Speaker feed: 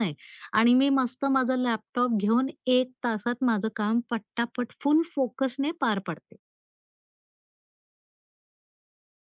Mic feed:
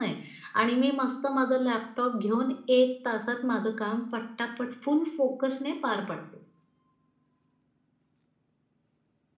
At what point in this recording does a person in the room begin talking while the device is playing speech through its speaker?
none

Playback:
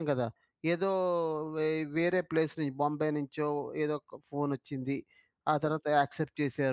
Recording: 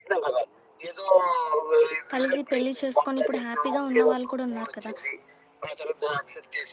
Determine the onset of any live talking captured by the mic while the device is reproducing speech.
2.1 s

